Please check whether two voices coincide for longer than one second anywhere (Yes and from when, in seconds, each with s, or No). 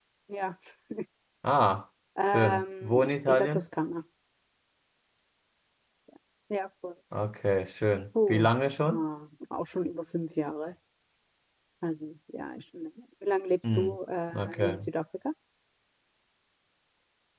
Yes, from 2.3 s